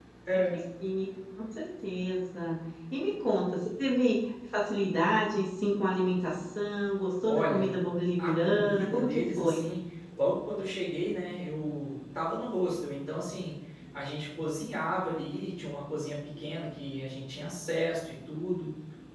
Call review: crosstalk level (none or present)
present